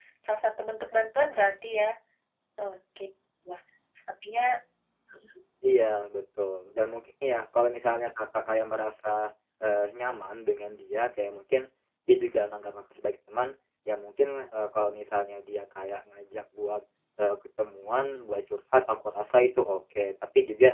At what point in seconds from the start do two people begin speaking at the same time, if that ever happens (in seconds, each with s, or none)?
none